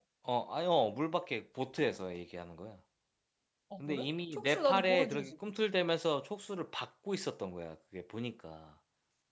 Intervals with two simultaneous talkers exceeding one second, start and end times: 3.9-5.3

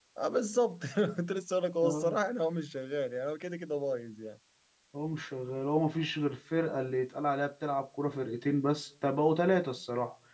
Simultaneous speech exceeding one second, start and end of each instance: none

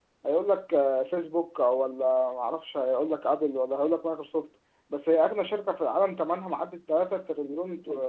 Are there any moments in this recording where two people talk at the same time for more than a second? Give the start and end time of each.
none

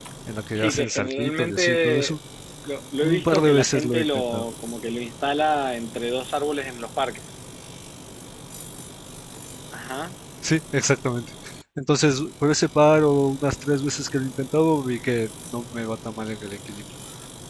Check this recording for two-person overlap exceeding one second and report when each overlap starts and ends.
0.5-2.2, 3.0-4.4

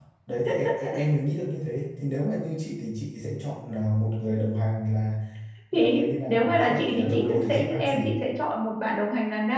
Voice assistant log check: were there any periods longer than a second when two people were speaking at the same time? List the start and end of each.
5.7-8.0

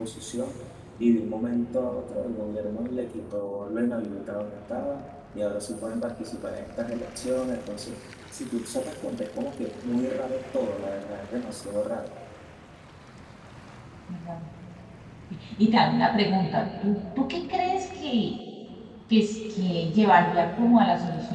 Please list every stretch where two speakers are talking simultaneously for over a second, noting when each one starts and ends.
none

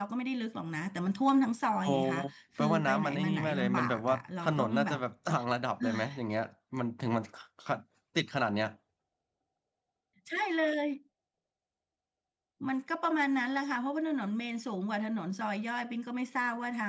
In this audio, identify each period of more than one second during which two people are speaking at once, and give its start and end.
2.6-5.0

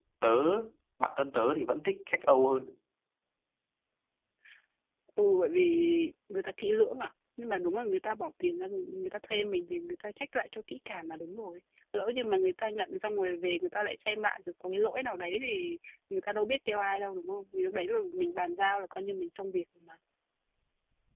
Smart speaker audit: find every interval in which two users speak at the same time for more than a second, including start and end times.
none

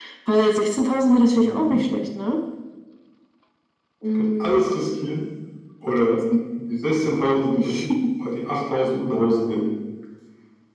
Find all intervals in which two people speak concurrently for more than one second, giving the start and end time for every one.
none

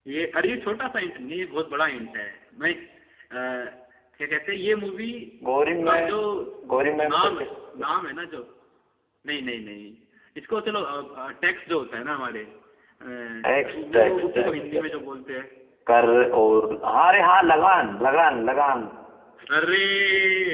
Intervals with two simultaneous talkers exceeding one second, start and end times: 13.6-14.8

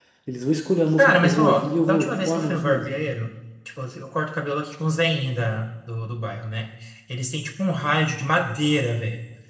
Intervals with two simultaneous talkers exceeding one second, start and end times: 1.0-2.9

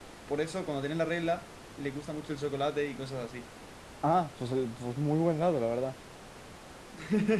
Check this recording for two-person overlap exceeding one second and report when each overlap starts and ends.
none

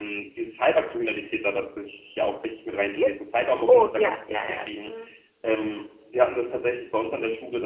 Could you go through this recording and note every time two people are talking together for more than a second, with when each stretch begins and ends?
3.7-4.9

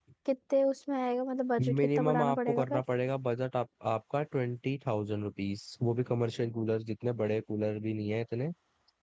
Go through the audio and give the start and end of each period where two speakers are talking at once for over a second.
1.6-2.8

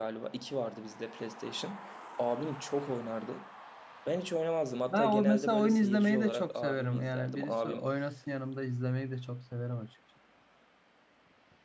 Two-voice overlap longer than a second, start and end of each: 4.9-7.8

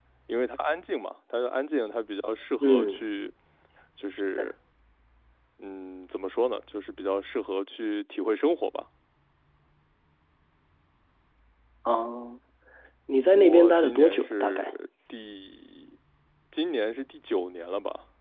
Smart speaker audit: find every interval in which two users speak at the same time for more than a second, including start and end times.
13.3-14.7

